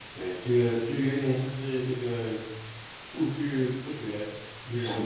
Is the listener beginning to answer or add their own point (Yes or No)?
No